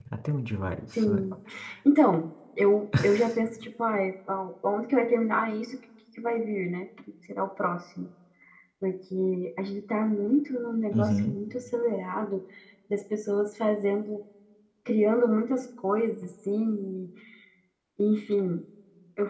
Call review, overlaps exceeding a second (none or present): none